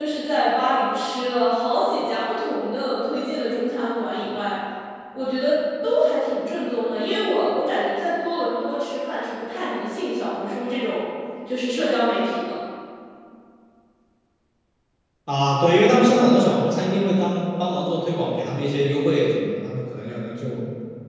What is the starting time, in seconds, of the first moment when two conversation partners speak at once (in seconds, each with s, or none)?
none